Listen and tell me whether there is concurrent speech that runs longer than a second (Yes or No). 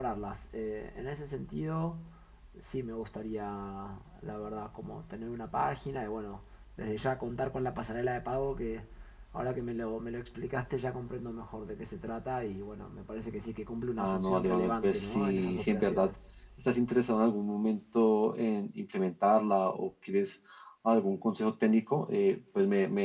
Yes